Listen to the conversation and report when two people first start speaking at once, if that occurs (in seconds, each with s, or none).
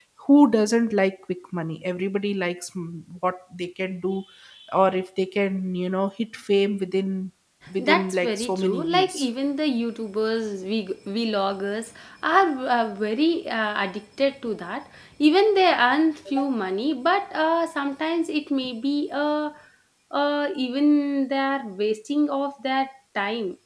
7.8 s